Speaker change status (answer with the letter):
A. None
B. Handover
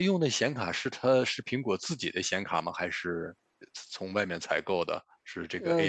B